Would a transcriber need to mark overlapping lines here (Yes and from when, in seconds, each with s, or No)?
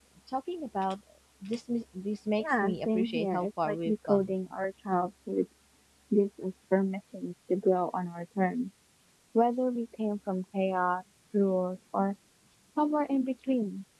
Yes, from 2.4 s